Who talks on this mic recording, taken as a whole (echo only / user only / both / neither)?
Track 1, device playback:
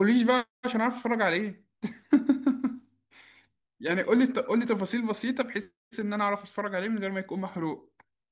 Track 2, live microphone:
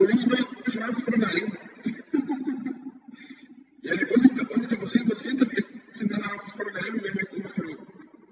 echo only